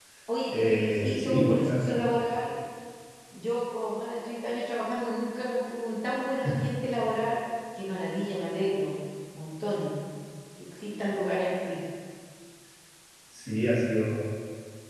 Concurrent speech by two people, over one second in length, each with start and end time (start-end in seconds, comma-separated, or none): 0.5-2.0